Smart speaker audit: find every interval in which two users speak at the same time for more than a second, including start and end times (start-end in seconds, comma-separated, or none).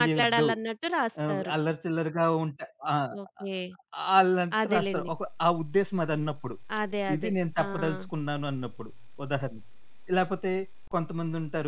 none